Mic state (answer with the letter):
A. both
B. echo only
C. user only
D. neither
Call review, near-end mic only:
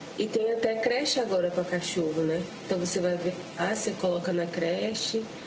B